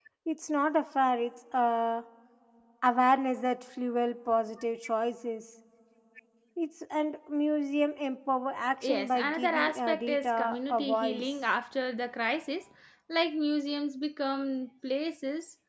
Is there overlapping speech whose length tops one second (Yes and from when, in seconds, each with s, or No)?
Yes, from 8.8 s